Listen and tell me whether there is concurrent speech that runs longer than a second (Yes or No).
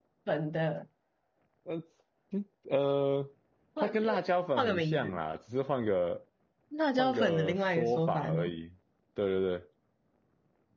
Yes